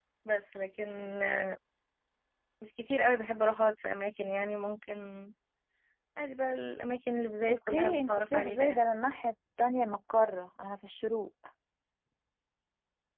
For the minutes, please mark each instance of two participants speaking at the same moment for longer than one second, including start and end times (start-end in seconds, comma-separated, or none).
7.5-8.8